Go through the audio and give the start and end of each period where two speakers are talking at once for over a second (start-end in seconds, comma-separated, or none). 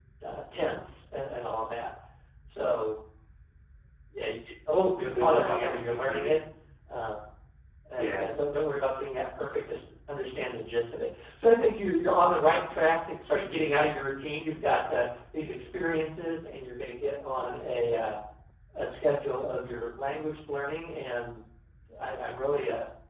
5.0-6.4